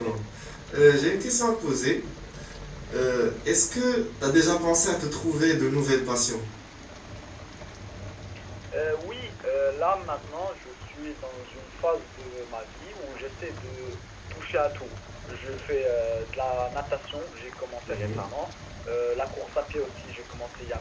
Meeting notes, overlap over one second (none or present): none